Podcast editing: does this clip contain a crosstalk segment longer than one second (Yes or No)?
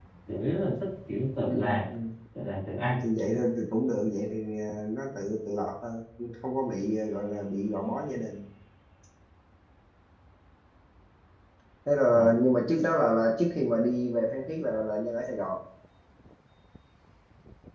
No